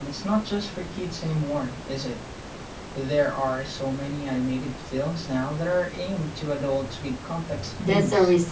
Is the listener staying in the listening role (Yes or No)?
No